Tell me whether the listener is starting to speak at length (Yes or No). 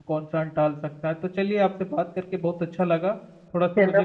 No